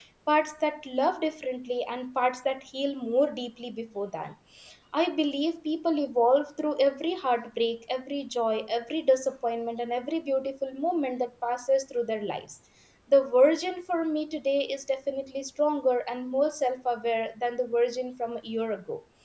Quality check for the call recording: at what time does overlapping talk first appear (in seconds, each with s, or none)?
none